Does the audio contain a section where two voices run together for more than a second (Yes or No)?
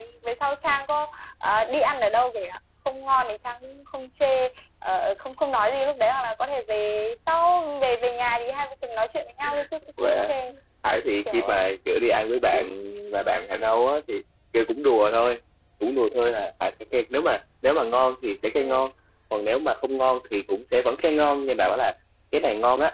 No